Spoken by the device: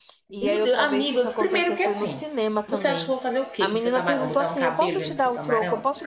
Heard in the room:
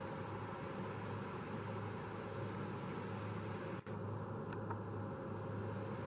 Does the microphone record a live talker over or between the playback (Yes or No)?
No